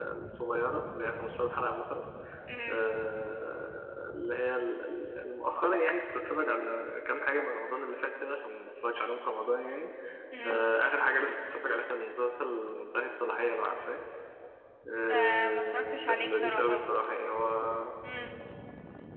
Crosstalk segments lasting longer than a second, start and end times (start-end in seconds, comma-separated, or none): 15.1-16.8